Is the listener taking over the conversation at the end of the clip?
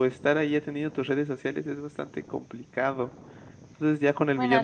No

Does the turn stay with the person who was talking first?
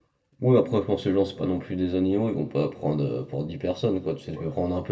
Yes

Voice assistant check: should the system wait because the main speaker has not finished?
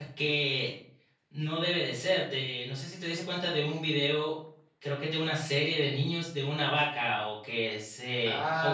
No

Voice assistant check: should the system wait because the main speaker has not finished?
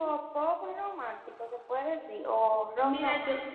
No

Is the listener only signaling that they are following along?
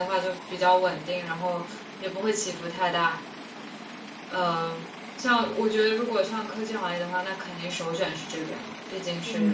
No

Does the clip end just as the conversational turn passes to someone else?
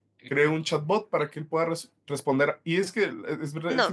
Yes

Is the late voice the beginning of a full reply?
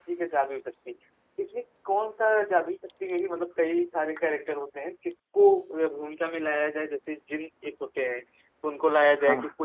No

